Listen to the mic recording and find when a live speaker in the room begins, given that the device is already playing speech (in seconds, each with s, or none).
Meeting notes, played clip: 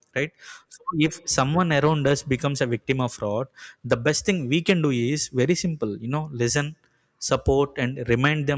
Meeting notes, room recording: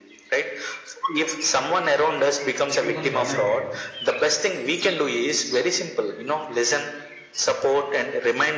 2.8 s